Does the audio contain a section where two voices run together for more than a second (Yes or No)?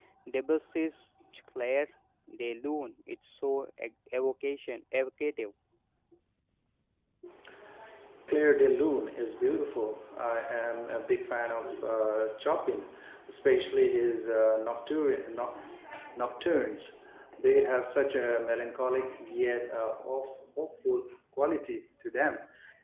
No